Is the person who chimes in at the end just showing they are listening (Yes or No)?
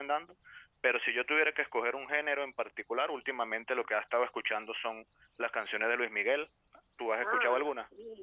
No